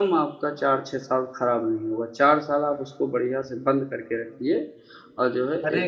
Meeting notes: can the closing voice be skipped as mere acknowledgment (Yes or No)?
No